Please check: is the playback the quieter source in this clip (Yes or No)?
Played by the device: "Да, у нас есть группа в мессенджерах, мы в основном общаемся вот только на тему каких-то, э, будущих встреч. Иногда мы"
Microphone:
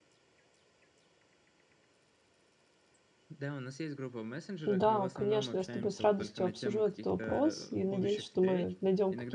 Yes